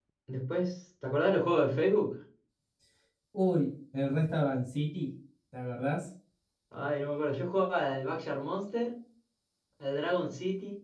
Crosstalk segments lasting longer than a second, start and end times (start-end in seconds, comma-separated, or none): none